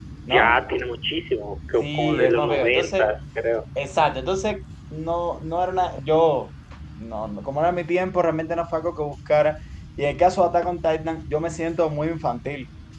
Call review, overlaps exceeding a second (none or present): present